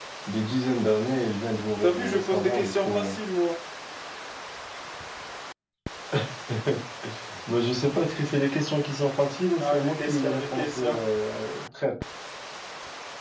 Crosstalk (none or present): present